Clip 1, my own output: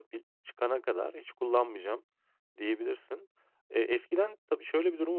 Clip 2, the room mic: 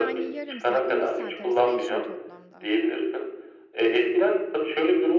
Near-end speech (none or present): present